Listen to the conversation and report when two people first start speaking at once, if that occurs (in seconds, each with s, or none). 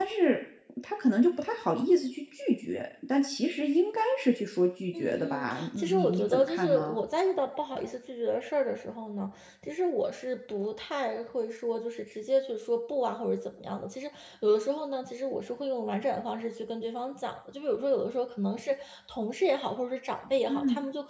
5.0 s